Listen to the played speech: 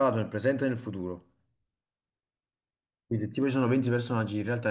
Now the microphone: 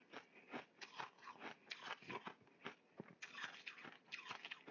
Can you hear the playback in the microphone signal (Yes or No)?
No